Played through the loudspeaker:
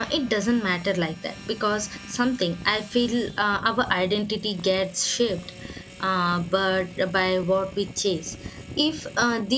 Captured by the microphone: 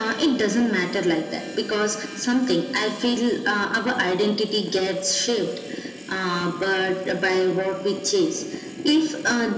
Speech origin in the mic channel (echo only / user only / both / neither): echo only